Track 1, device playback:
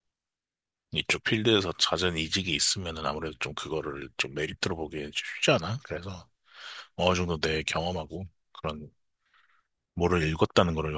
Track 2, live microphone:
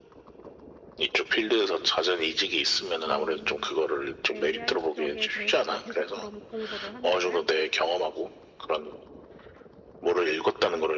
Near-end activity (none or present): present